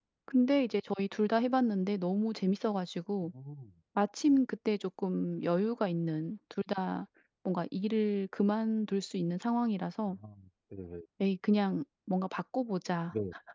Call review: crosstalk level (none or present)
none